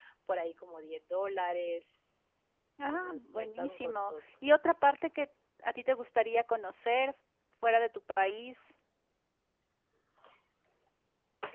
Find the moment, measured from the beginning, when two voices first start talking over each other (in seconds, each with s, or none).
2.9 s